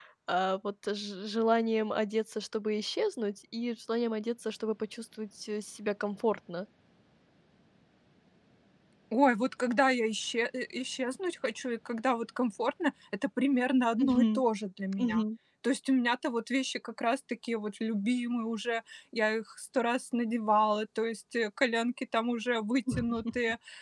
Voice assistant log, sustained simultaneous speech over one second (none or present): none